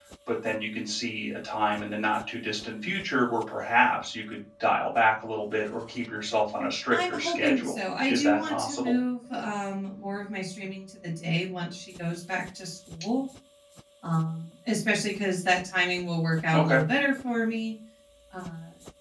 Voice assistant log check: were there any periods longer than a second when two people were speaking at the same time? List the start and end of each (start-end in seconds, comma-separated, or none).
6.9-8.9